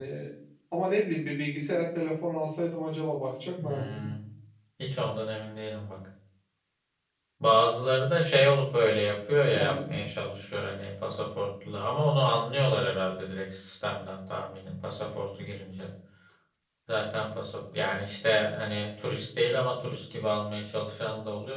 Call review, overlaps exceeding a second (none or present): none